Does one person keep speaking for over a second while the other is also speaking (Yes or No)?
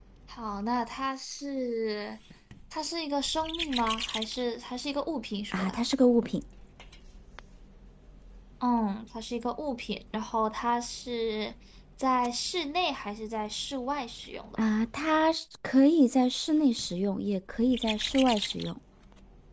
No